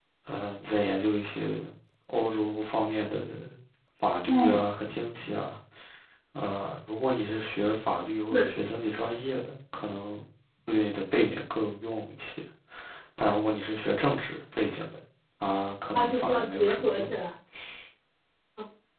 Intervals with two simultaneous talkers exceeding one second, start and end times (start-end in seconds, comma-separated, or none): 15.9-17.1